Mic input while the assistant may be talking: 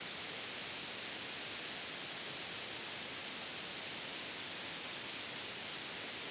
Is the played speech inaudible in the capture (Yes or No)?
Yes